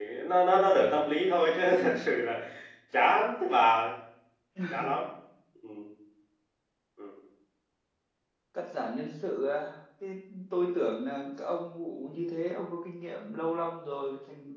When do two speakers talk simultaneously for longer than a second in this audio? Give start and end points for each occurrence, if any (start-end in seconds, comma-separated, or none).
none